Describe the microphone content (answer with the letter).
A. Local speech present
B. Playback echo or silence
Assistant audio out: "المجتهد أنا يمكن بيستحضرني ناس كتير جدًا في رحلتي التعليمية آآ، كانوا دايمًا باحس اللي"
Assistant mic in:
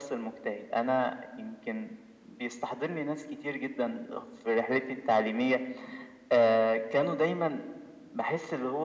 B